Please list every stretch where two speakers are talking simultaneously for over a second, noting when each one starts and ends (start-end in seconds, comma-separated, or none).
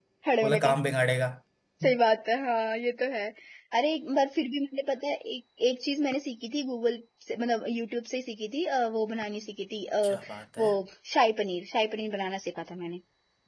none